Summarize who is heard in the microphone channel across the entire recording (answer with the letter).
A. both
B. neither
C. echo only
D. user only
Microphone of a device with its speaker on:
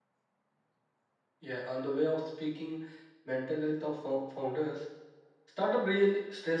D